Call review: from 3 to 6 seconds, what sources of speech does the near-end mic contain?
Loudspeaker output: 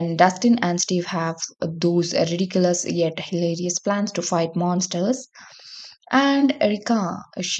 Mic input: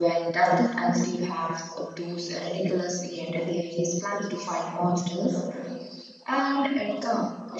echo only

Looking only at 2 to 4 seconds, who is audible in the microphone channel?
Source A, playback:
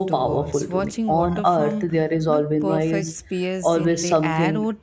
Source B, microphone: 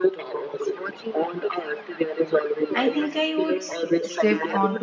both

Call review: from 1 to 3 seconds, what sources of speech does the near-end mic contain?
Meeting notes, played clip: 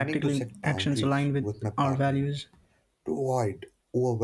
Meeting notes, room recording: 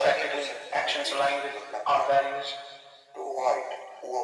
echo only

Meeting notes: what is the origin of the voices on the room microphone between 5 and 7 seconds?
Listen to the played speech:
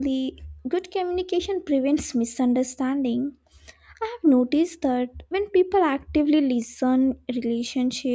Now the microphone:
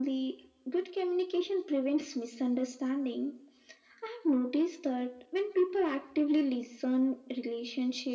echo only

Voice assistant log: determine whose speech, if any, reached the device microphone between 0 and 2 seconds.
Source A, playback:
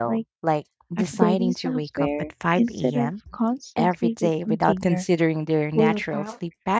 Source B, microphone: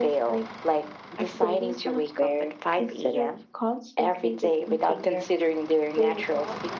echo only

